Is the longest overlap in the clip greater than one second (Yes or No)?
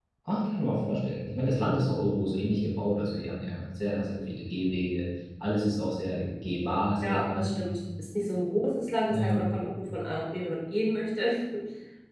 No